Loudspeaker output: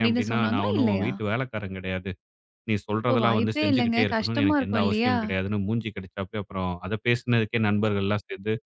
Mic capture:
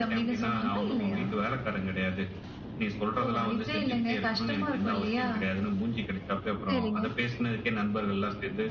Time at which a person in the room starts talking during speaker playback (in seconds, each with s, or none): 6.7 s